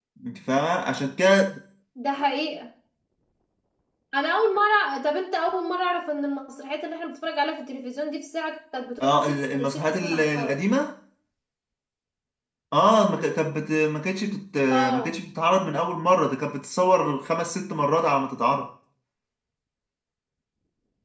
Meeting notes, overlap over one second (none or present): present